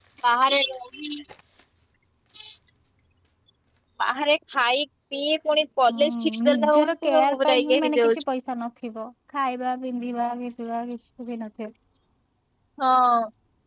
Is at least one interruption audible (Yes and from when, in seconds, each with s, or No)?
Yes, from 5.9 s